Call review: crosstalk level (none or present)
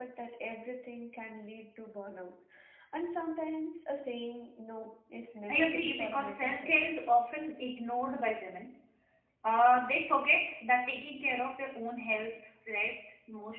present